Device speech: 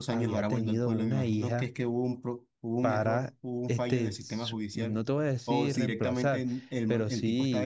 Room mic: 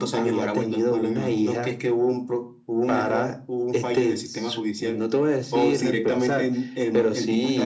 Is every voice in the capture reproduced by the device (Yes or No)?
Yes